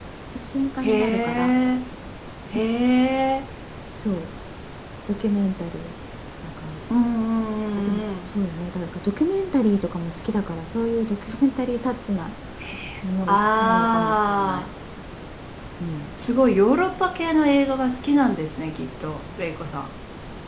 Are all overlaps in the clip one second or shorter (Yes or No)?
No